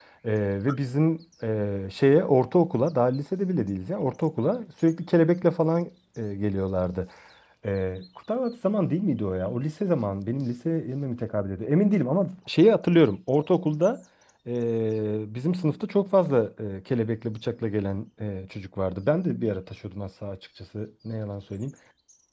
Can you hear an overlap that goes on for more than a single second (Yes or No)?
No